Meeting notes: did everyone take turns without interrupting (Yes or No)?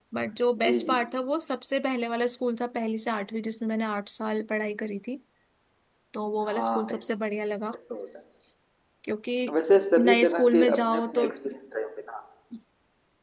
No